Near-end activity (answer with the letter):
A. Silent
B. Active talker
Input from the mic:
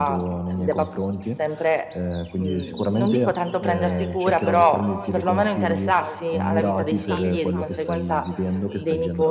B